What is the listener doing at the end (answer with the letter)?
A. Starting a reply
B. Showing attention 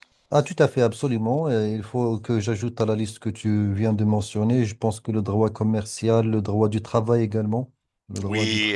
A